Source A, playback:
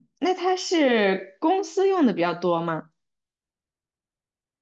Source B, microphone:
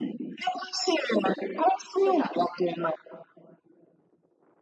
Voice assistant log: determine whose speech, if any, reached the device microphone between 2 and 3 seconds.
both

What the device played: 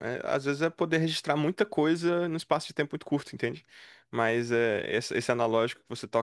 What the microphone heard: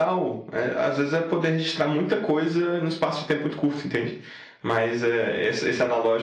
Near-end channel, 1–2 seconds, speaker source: echo only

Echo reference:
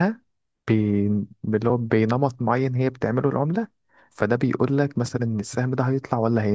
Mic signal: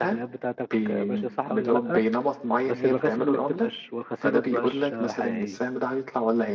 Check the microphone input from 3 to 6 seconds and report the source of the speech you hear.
both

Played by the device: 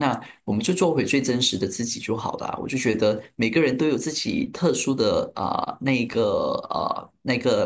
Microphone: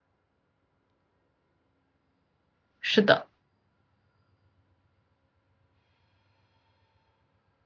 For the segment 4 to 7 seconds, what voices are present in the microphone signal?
neither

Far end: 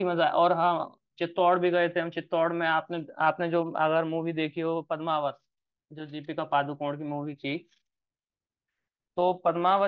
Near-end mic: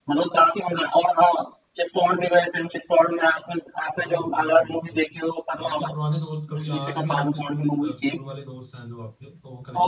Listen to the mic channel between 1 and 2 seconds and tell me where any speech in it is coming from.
echo only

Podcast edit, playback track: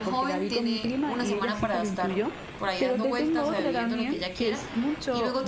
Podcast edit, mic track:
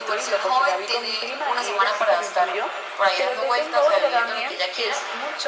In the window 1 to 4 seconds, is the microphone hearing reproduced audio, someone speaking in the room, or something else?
echo only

